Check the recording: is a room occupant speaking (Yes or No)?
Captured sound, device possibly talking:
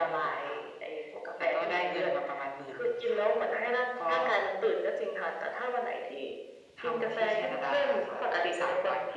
No